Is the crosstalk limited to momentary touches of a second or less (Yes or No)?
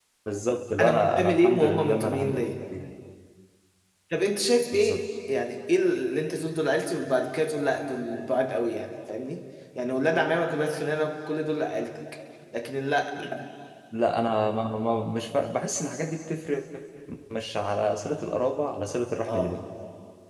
No